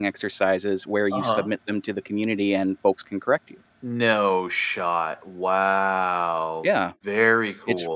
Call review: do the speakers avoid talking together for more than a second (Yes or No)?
Yes